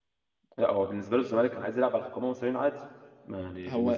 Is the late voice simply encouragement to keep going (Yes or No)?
No